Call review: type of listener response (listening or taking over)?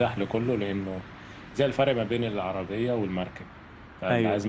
listening